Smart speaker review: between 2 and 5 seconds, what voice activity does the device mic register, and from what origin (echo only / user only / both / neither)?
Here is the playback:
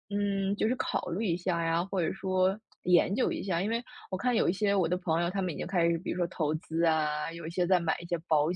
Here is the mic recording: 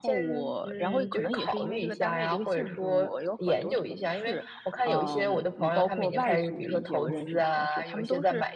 both